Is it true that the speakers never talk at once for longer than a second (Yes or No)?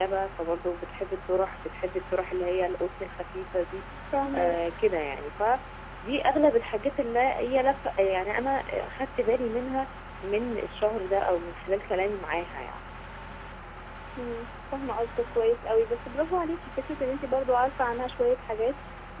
Yes